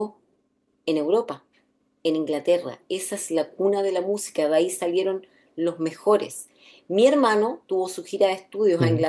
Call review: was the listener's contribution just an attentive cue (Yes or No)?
Yes